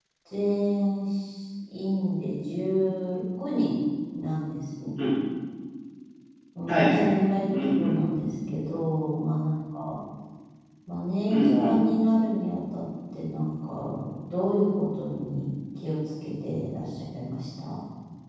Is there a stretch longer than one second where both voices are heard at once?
Yes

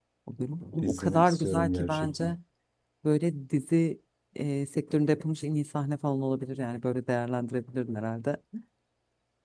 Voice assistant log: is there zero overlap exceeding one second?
No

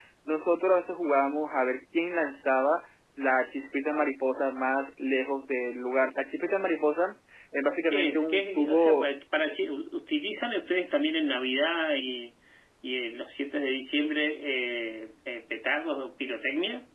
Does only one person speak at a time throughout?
No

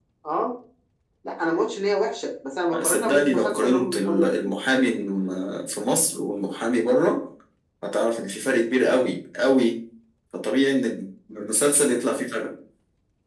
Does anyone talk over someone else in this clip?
Yes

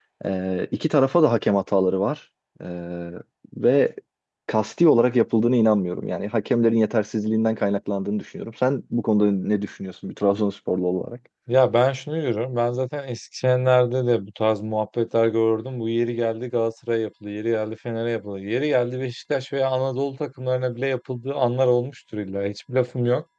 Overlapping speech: No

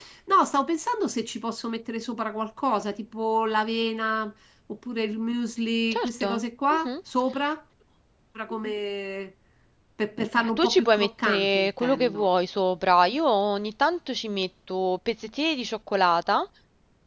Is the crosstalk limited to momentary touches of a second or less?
No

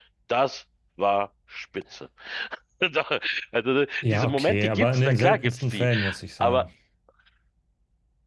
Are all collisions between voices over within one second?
No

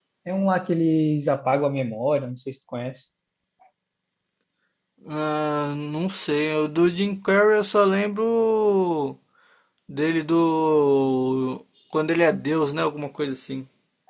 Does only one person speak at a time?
Yes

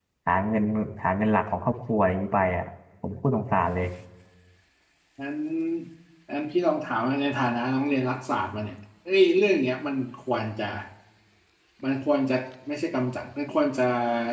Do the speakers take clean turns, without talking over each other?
Yes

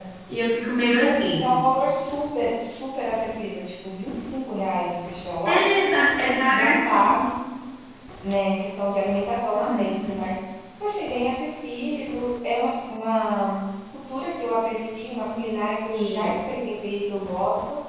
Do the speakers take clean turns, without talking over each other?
No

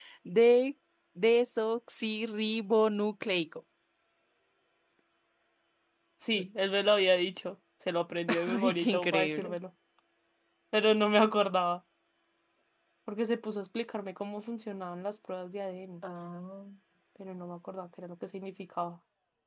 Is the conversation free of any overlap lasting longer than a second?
No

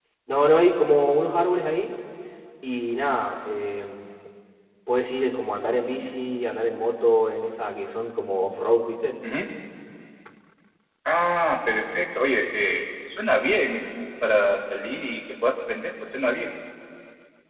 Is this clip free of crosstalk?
Yes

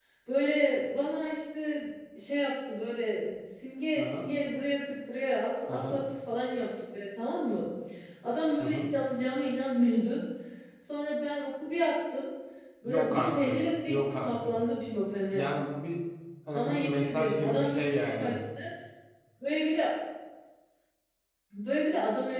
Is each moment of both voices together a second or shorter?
No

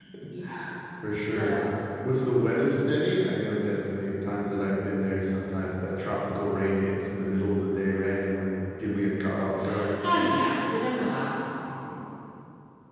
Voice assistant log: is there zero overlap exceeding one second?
Yes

